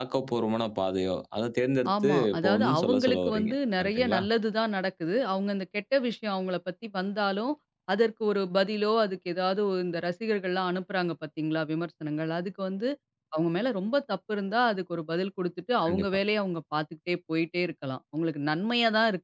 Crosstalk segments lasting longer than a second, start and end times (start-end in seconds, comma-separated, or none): 2.0-4.2